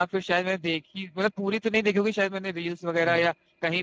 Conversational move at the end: listening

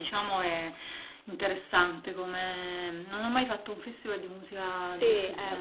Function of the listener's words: taking over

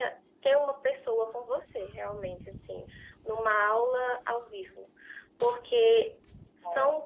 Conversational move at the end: listening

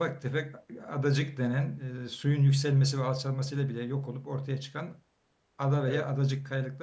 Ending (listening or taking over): listening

